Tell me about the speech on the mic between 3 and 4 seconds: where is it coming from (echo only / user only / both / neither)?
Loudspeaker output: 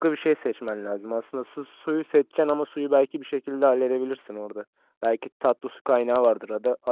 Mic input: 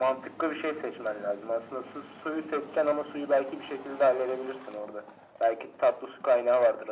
echo only